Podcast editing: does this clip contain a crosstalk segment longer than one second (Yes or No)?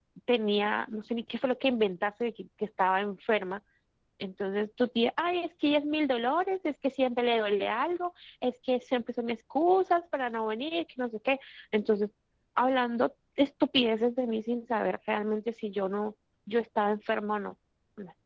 No